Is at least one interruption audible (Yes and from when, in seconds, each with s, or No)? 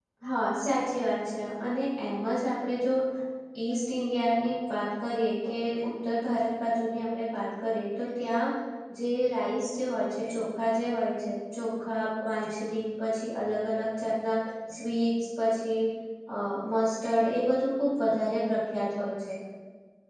No